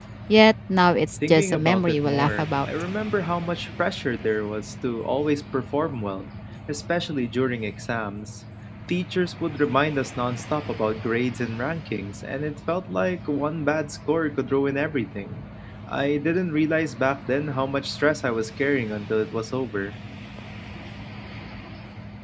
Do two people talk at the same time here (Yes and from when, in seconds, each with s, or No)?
Yes, from 1.3 s